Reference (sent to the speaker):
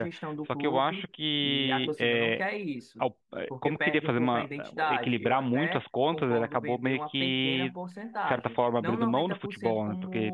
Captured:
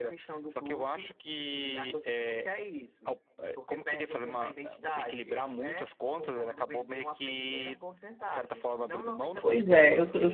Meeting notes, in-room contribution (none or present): present